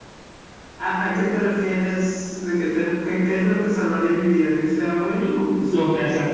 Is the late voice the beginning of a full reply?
Yes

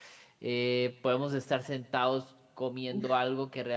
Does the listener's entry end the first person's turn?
No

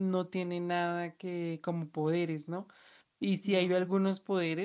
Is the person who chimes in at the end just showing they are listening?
Yes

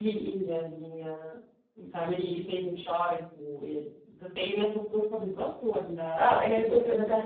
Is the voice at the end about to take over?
Yes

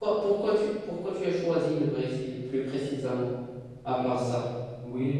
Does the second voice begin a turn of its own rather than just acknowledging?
Yes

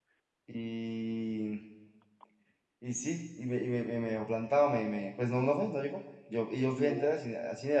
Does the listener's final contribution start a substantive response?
No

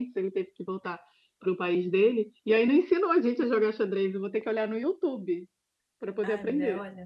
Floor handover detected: Yes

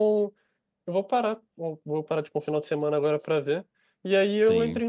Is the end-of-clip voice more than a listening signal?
No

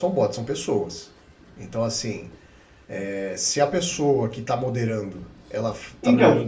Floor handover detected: No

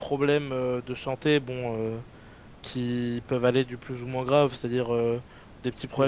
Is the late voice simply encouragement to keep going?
Yes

